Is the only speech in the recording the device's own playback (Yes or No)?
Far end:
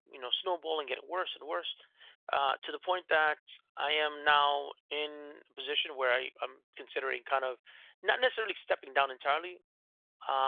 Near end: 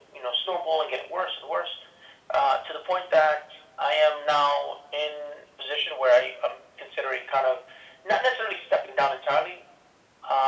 Yes